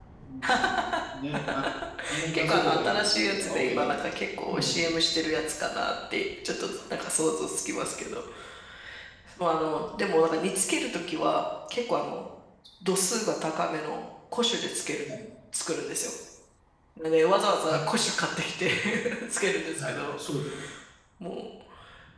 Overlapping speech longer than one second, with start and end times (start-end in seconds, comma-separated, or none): 2.3-3.9